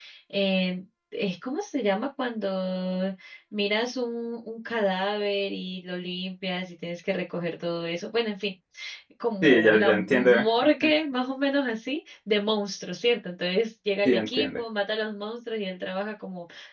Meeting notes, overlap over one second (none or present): present